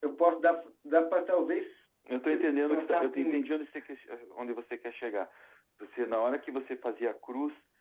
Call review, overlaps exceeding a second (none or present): present